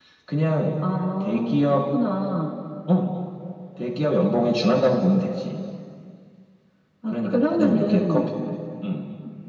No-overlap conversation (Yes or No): No